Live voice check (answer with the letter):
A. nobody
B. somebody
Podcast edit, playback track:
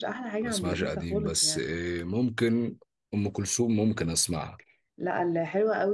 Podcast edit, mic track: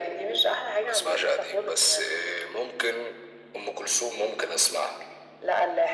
A